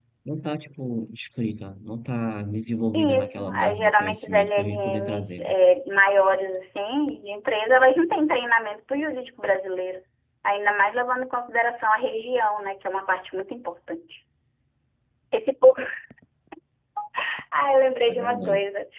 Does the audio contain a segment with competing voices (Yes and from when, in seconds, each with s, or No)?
Yes, from 2.9 s